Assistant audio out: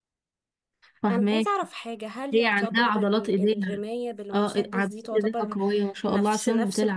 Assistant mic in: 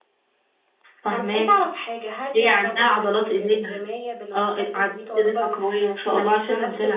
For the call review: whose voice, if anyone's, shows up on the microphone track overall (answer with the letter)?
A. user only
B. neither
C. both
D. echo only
D